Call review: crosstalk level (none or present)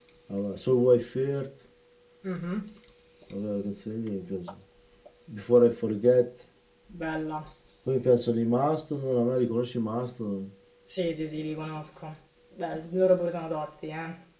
none